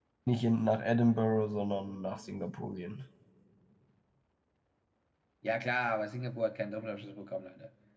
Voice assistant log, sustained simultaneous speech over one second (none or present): none